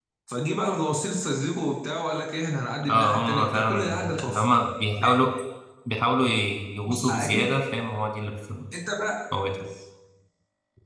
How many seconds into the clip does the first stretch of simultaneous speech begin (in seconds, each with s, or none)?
2.9 s